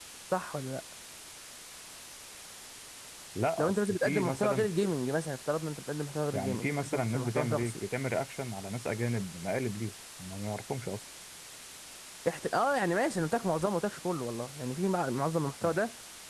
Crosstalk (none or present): present